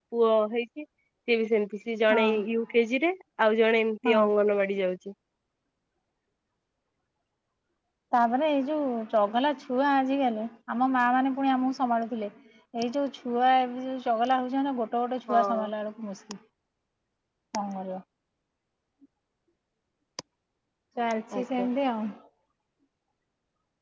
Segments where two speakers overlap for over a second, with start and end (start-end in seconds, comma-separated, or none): none